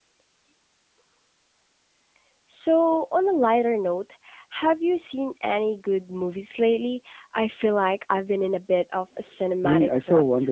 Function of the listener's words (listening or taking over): taking over